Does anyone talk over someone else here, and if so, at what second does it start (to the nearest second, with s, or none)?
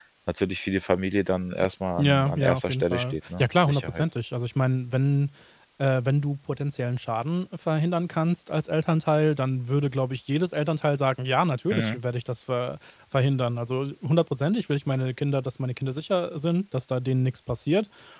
2 s